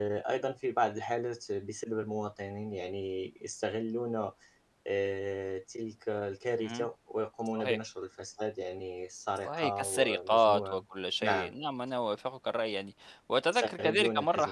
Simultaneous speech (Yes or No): Yes